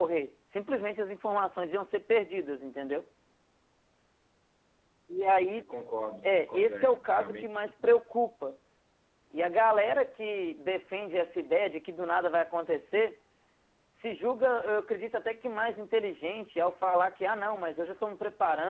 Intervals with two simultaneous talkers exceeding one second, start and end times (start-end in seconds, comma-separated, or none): 6.2-7.6